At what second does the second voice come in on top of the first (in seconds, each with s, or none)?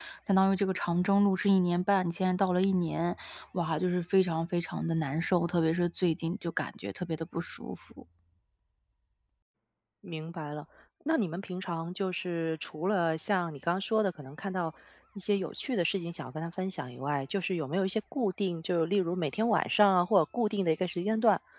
none